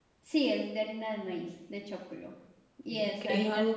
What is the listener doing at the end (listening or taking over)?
taking over